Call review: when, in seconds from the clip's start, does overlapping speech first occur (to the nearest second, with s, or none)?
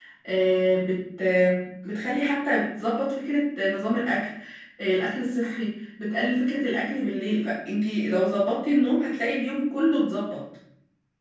none